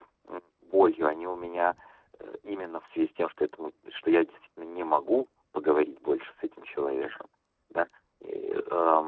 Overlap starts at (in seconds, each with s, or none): none